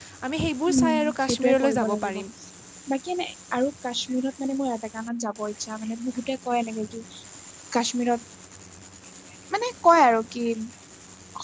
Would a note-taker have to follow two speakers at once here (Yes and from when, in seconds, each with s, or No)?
Yes, from 0.7 s